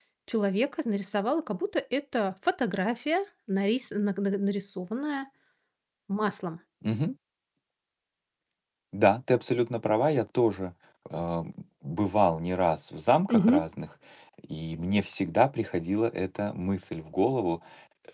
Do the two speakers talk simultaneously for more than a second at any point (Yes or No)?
No